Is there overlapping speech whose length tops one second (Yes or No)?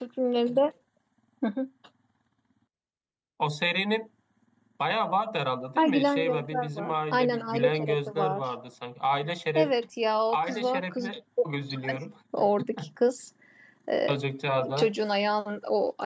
Yes